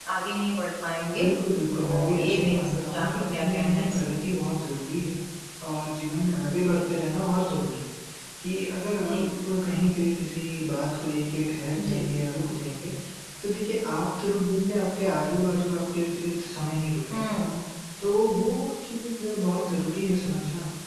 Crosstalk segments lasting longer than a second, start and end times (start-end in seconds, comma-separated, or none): 1.7-4.2